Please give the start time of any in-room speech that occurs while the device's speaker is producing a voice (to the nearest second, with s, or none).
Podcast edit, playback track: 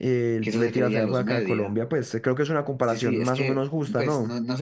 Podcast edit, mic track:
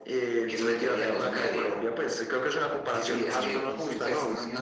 3 s